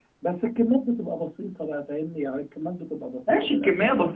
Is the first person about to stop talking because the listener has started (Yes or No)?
Yes